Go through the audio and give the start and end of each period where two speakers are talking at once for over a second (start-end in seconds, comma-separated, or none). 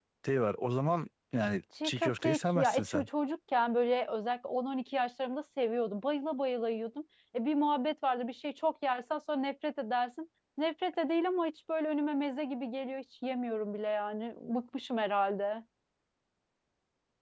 1.8-3.1